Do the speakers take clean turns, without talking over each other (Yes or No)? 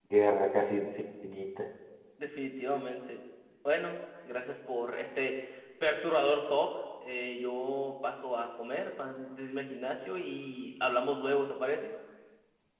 Yes